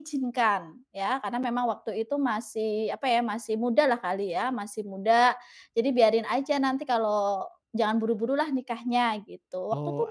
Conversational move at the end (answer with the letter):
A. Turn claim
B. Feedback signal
A